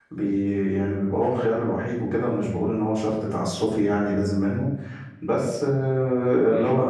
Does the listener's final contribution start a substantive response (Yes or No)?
No